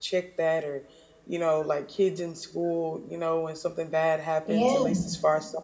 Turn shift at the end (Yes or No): No